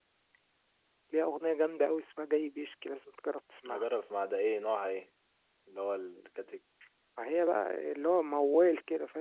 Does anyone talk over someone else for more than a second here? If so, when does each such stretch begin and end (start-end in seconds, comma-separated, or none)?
none